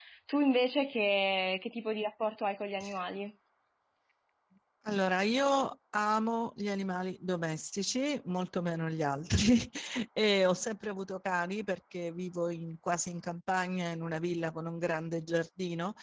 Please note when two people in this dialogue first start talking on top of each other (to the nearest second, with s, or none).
none